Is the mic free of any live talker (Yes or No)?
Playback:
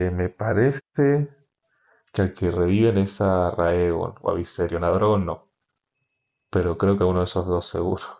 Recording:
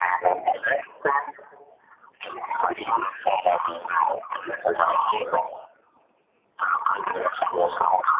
Yes